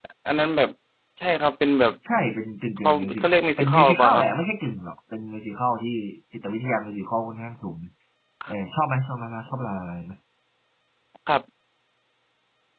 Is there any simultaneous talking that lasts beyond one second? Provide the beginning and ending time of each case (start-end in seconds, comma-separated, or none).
2.8-4.3